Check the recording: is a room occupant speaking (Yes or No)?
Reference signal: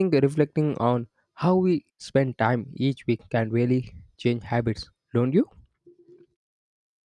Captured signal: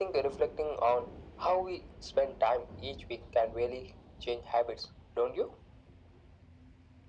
No